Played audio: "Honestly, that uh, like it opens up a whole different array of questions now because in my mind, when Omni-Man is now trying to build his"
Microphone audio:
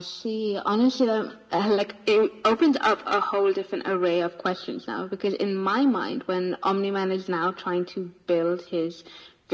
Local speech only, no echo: none

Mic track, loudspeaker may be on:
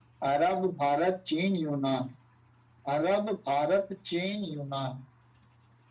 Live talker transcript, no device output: none

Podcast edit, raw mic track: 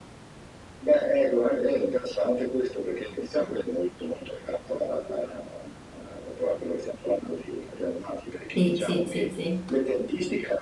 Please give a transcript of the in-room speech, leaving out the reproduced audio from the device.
Sì, sì, sì, sì,

